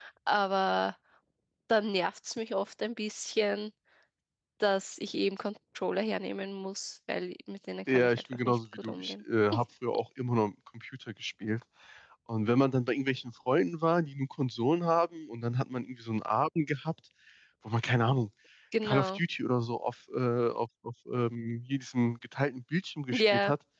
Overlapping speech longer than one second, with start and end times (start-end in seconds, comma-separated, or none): 7.9-9.1